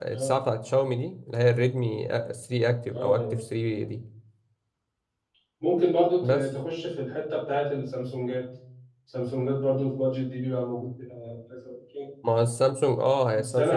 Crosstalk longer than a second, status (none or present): none